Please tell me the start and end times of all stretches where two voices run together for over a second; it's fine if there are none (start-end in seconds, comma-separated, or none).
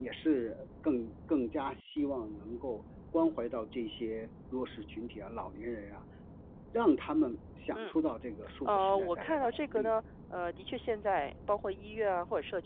8.6-9.9